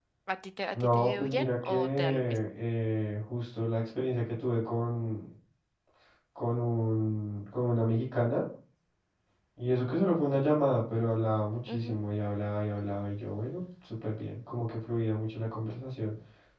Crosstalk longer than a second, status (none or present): present